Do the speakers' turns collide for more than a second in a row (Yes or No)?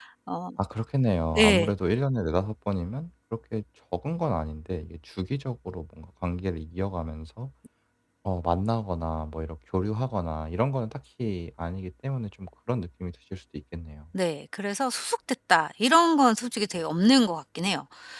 No